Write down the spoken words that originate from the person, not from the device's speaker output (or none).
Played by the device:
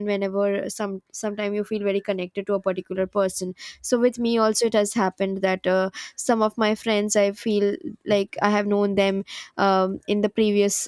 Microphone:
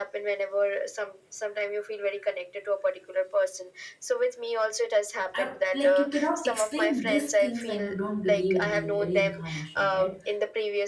I, like you cannot explain these things when you don't believe in re- reincarnation right